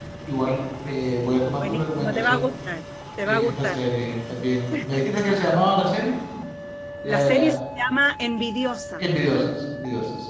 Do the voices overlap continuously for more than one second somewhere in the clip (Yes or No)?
Yes